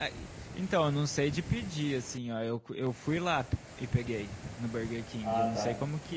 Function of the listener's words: listening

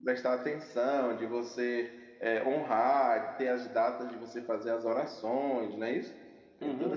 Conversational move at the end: taking over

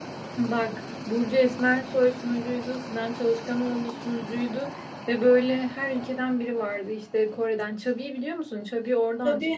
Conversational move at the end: taking over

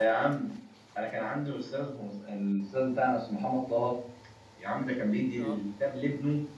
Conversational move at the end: listening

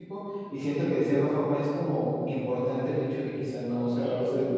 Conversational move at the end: listening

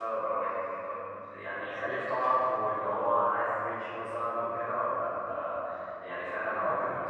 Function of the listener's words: listening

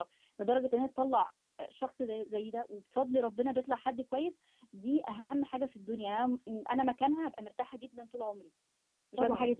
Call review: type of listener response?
taking over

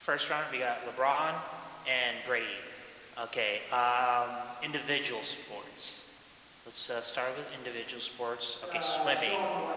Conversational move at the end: taking over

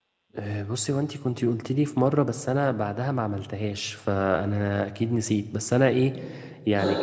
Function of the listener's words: listening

